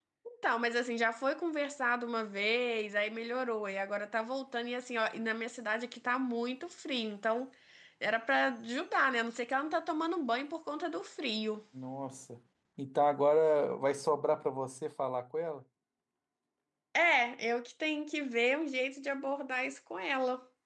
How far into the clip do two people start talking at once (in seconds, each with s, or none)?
none